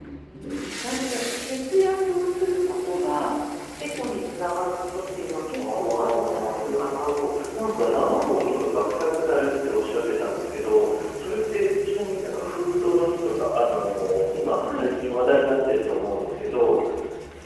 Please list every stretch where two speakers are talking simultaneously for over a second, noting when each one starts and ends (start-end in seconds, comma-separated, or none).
5.5-8.2